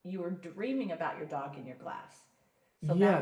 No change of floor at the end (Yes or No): No